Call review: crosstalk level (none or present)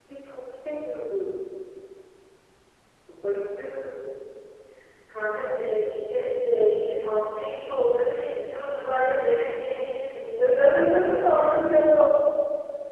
present